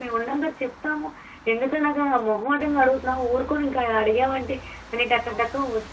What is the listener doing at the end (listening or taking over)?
listening